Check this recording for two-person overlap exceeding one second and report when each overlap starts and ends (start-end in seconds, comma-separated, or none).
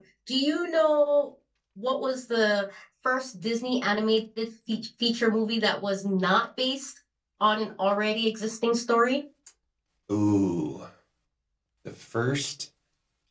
none